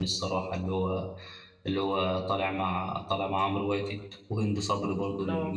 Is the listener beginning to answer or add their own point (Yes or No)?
No